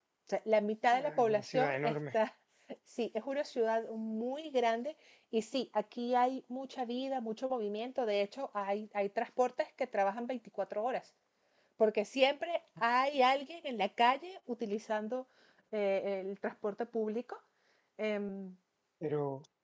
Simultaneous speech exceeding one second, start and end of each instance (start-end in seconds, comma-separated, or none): 0.9-2.2